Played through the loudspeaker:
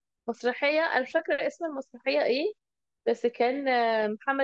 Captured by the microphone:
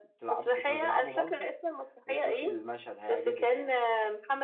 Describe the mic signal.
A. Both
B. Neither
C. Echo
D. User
A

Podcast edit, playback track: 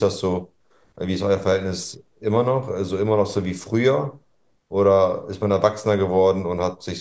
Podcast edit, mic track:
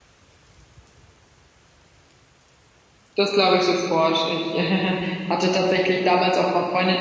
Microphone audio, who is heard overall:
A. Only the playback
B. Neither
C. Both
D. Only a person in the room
D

